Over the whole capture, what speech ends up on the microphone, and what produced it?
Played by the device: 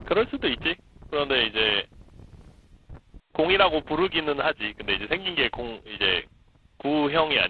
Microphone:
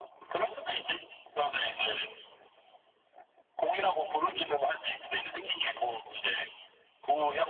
echo only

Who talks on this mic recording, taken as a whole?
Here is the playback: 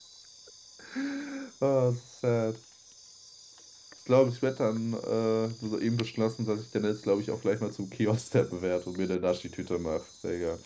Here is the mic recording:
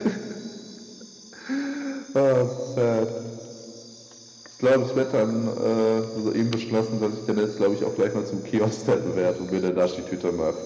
echo only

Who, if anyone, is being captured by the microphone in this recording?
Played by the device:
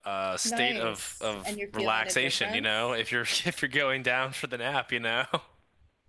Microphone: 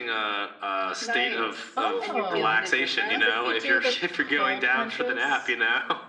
both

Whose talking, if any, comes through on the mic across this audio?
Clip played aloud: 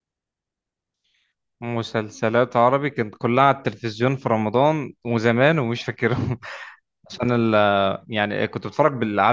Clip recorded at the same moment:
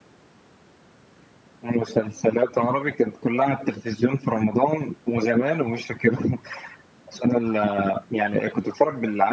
echo only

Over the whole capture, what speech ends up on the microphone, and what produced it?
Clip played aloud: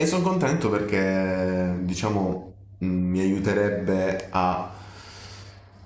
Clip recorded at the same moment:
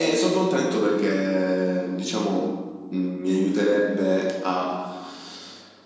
echo only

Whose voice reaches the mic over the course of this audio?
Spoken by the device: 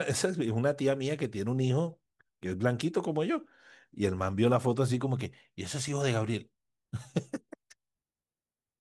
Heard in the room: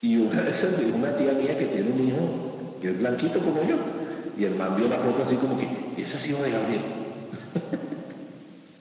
both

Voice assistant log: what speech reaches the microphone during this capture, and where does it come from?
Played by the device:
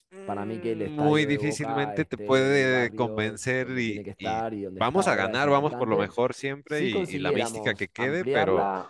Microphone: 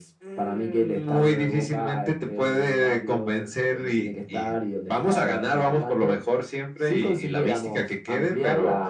echo only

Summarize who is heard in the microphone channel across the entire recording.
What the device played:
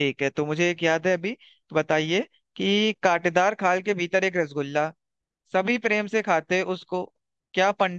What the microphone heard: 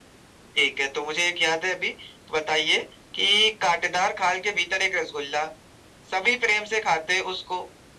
echo only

